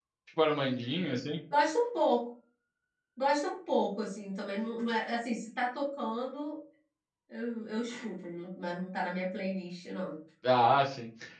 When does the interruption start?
none

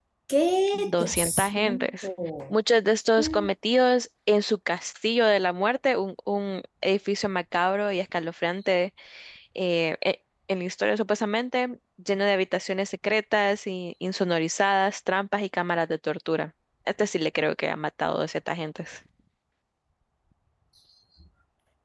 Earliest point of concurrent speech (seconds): 0.7 s

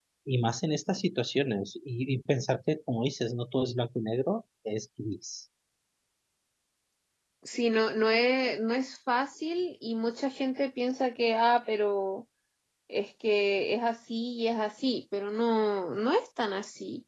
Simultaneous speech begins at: none

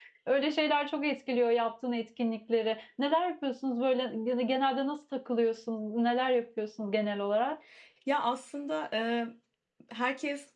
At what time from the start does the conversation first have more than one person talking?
none

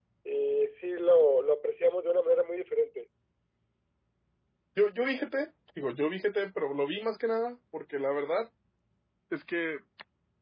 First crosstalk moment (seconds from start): none

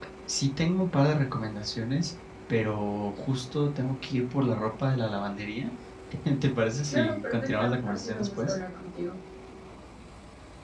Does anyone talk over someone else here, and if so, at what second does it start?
6.9 s

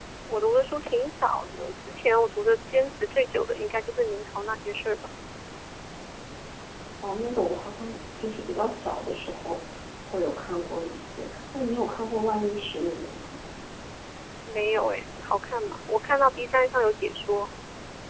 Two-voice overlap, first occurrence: none

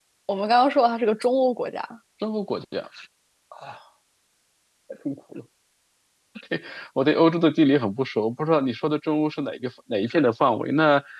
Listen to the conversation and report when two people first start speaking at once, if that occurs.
none

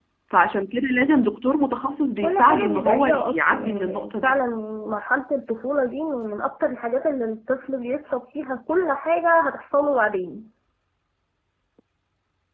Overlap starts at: 2.2 s

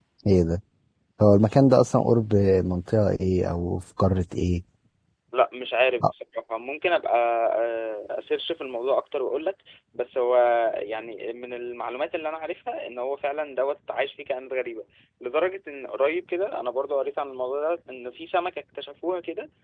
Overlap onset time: none

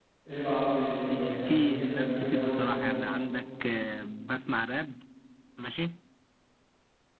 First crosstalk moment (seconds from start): 1.1 s

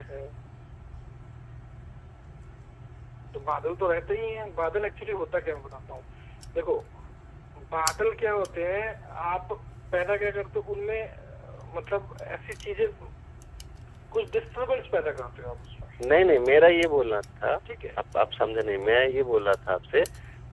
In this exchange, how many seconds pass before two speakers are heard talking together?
none

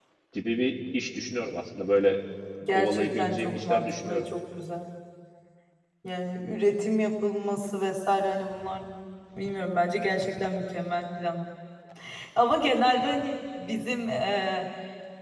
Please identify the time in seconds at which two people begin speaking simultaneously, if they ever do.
2.7 s

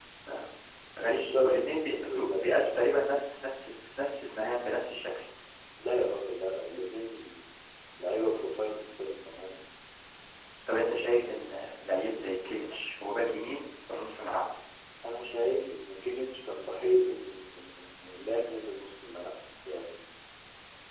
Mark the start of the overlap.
1.0 s

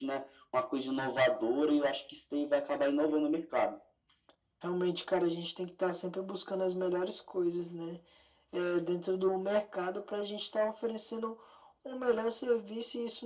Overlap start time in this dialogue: none

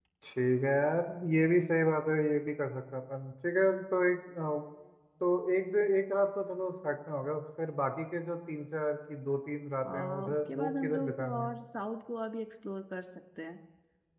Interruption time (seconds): 9.8 s

